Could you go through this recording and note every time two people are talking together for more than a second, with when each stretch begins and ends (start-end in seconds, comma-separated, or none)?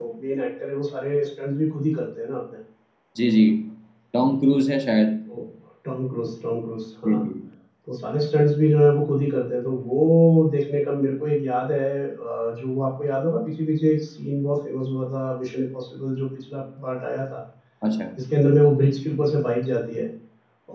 none